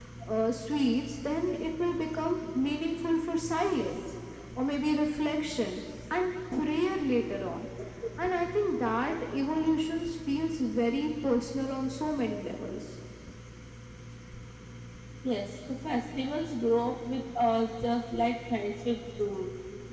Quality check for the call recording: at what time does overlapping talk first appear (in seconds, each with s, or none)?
none